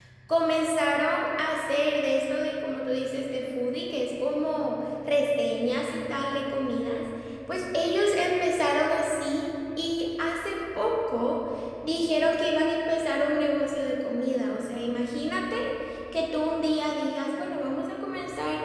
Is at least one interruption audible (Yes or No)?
No